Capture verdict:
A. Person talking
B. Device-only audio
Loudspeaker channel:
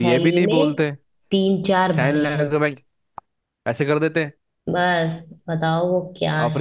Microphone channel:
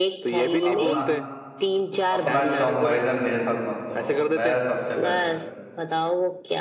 A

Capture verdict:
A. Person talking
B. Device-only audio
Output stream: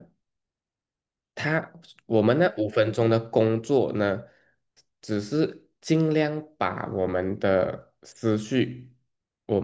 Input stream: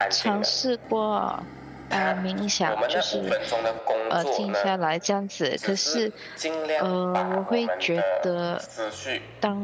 A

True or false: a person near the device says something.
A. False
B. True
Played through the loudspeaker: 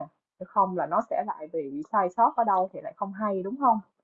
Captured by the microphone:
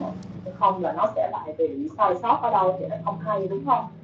A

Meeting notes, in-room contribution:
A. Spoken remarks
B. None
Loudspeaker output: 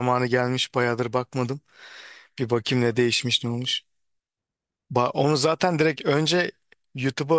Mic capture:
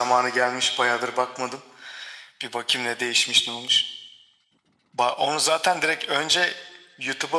B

